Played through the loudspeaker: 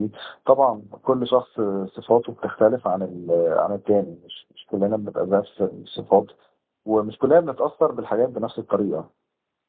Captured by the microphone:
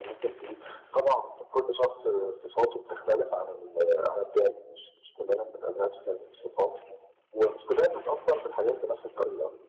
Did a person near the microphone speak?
No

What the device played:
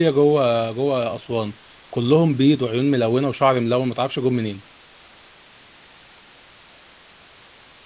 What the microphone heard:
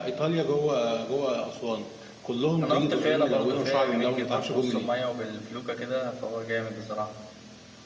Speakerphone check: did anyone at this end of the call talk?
Yes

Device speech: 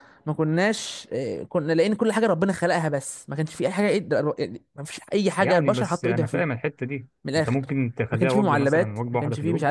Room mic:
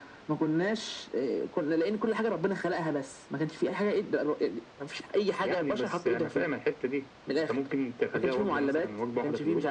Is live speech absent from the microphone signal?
Yes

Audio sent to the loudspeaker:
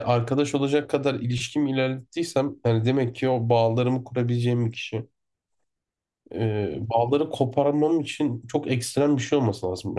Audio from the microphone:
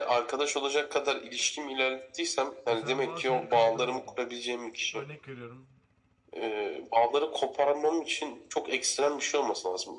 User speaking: Yes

